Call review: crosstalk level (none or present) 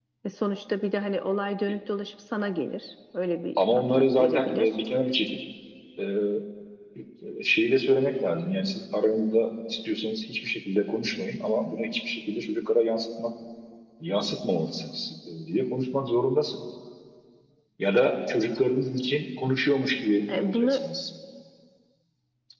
present